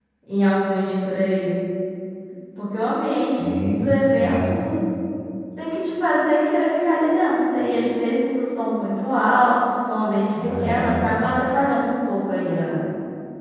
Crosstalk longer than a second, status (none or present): present